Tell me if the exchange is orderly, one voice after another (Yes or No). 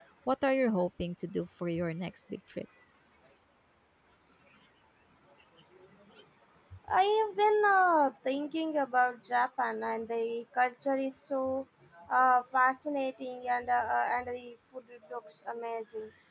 Yes